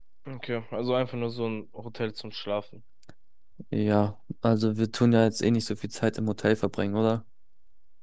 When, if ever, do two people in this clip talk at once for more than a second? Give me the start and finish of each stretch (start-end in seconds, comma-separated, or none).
none